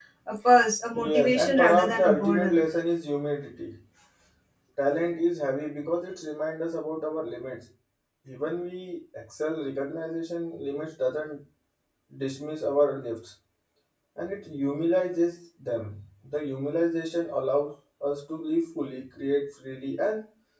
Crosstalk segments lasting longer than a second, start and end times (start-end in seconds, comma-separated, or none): 0.9-2.6